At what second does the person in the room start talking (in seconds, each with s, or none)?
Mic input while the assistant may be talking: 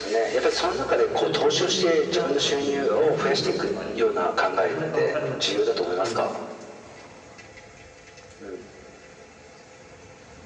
0.8 s